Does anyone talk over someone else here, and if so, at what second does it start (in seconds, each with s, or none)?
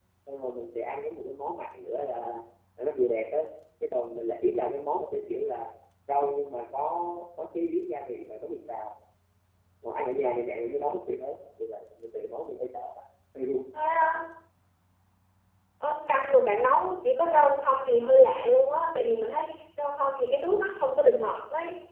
none